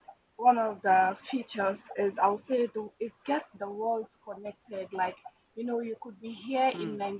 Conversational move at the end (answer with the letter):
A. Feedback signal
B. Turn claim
A